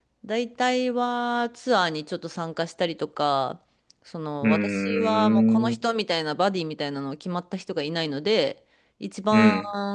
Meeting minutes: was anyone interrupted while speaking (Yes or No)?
Yes